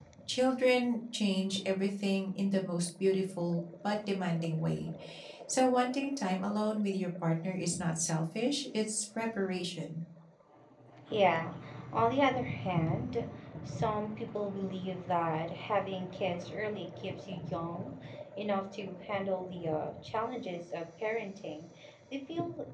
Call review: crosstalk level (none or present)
none